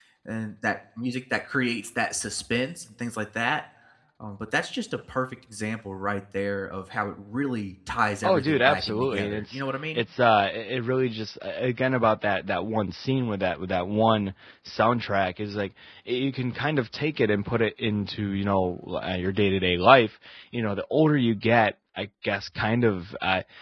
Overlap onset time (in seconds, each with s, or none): 8.2 s